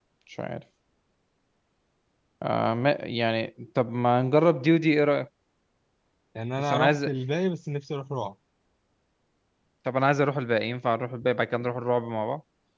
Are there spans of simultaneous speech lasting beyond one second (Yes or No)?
No